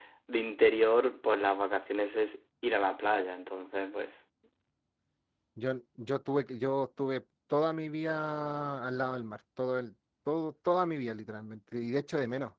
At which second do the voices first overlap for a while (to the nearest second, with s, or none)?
none